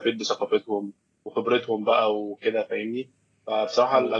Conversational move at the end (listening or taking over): listening